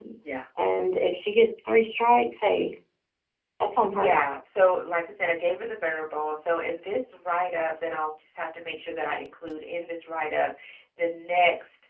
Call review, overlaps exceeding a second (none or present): none